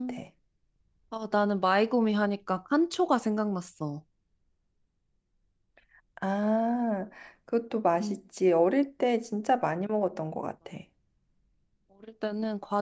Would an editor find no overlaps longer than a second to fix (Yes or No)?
Yes